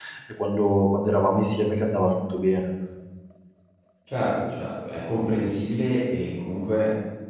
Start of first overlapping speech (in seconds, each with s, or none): none